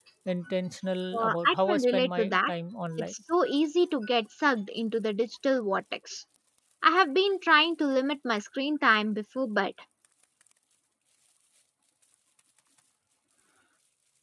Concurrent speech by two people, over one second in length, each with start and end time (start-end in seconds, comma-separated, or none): 1.1-2.5